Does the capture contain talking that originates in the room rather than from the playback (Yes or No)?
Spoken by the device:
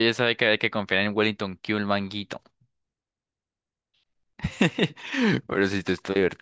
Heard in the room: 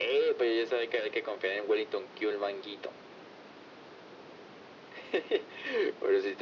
No